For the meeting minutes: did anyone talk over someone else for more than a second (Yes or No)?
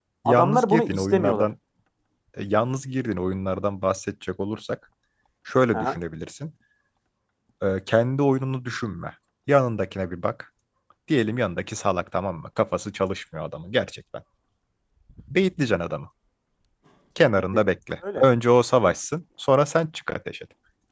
Yes